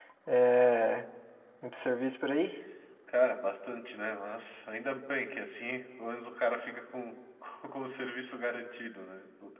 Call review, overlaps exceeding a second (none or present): none